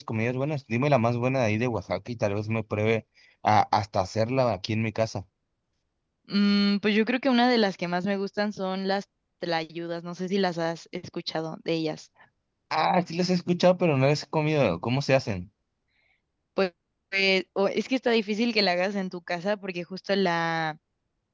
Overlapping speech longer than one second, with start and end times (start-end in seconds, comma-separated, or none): none